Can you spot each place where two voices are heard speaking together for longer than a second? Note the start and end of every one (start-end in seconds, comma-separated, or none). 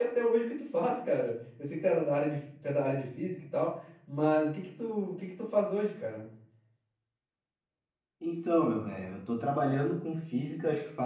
none